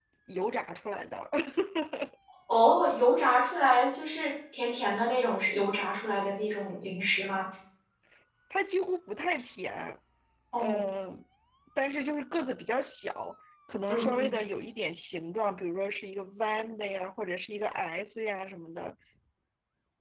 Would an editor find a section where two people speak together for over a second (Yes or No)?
No